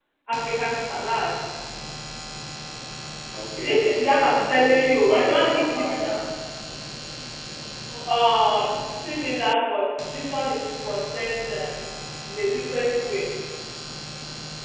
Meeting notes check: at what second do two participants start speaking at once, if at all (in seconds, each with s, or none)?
3.6 s